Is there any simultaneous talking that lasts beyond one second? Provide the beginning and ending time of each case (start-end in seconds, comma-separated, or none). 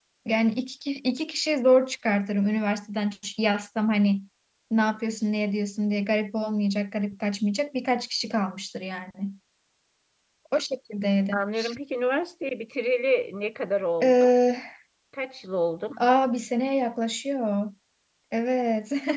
none